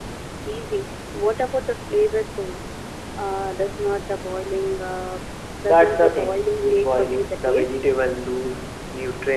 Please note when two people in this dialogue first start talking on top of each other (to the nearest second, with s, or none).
6 s